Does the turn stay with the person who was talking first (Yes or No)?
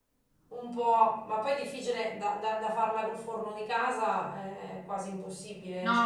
No